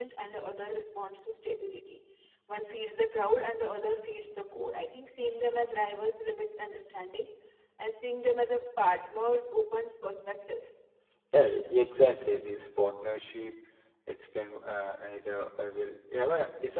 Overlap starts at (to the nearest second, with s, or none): none